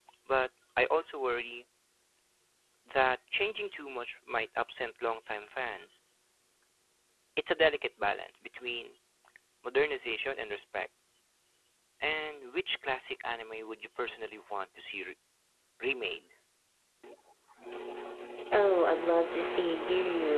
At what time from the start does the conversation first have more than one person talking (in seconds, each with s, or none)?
none